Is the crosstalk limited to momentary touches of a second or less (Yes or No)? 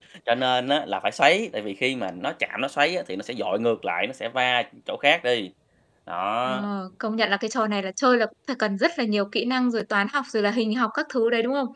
Yes